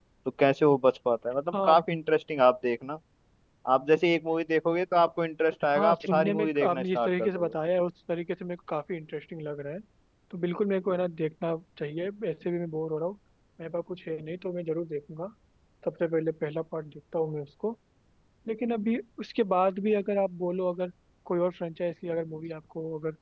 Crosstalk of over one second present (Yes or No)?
Yes